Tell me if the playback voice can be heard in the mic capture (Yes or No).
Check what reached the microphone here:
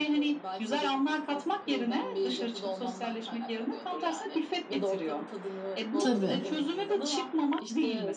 Yes